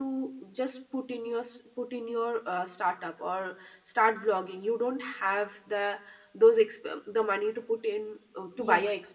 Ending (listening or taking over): taking over